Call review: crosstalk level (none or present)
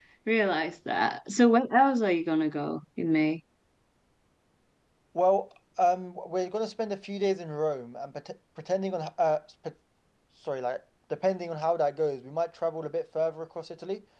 none